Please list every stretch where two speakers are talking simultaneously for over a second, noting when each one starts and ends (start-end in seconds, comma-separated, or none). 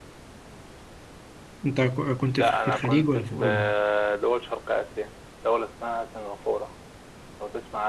2.4-3.7